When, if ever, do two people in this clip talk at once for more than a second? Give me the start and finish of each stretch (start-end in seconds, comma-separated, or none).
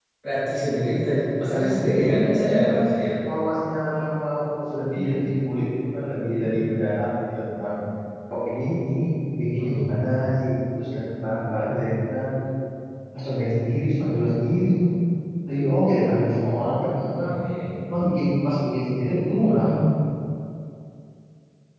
1.6-2.8